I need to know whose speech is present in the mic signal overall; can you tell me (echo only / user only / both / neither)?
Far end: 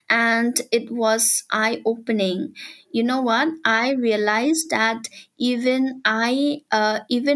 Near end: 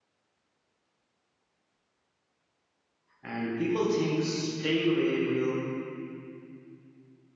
user only